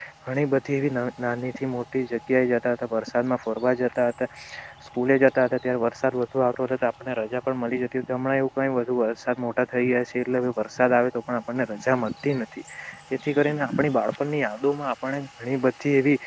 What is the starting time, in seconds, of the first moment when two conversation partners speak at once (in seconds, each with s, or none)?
none